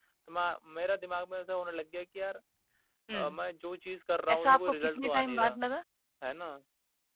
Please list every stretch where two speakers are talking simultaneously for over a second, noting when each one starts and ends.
4.3-5.6

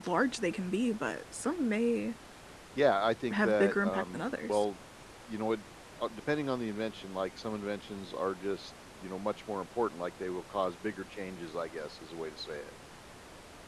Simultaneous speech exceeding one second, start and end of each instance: 3.3-4.6

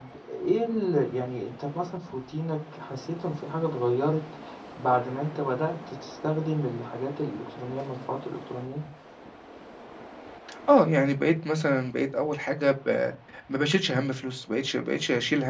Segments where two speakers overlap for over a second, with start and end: none

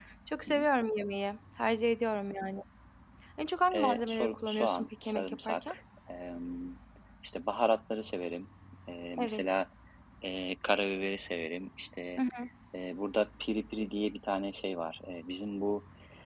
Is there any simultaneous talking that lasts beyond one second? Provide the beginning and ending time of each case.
3.7-5.7

